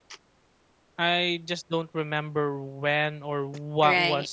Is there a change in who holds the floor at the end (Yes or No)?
Yes